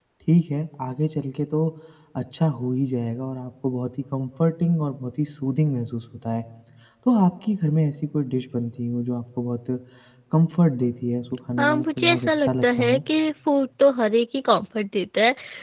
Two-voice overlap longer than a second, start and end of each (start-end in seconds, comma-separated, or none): 11.6-13.0